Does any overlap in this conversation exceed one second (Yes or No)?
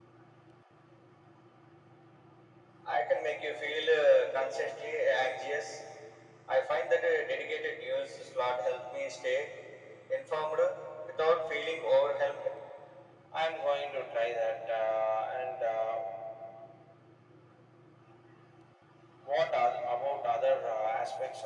No